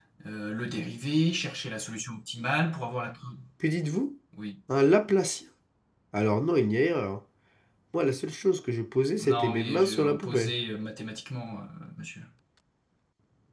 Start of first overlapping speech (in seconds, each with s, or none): 9.2 s